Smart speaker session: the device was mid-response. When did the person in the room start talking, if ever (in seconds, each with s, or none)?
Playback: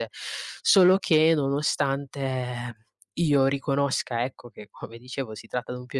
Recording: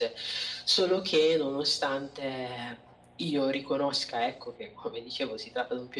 none